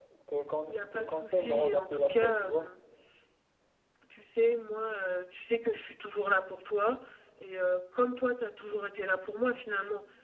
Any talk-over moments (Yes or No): Yes